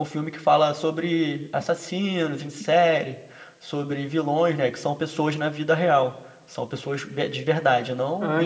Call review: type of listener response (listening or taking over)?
taking over